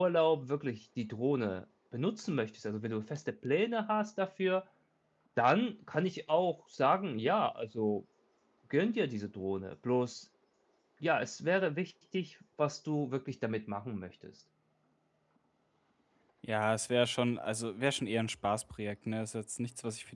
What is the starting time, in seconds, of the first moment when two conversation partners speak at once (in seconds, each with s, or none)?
none